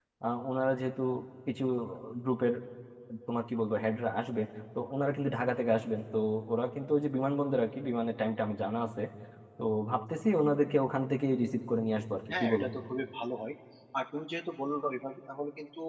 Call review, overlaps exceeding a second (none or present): none